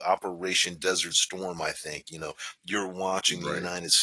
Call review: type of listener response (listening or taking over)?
listening